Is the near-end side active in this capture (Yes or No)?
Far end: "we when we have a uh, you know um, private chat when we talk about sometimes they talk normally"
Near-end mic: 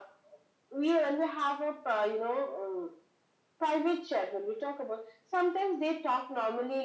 No